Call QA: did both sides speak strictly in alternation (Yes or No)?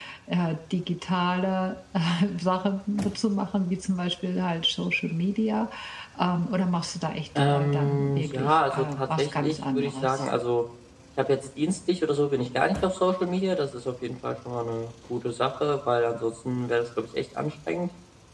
No